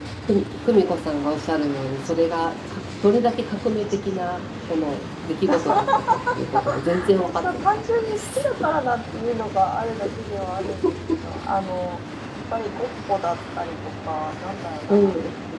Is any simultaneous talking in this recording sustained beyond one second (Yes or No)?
Yes